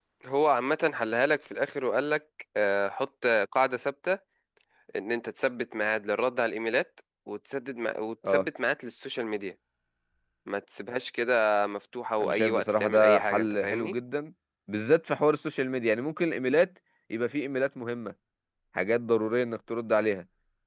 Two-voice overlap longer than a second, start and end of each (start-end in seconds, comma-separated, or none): 12.2-13.9